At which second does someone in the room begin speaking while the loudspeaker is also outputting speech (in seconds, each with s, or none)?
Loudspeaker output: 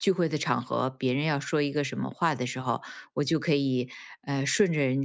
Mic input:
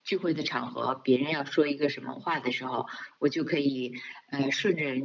none